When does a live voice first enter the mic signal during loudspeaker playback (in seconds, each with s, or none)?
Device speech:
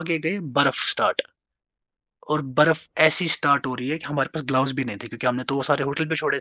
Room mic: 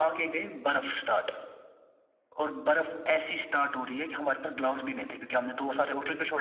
none